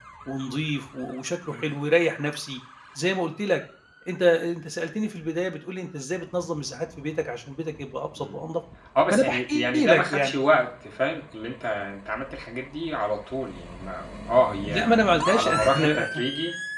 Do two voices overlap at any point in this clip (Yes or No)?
Yes